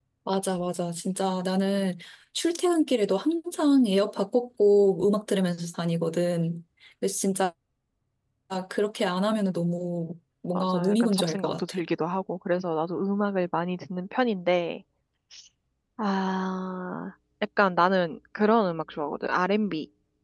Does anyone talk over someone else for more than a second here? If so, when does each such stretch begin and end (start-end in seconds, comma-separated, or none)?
10.5-11.8